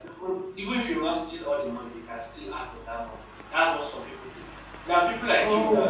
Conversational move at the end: listening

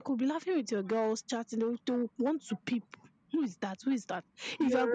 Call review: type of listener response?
listening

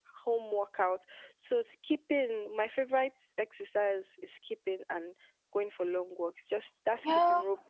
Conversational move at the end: taking over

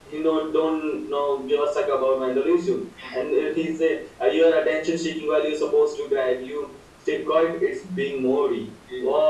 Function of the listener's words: listening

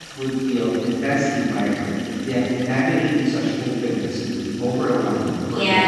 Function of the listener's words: taking over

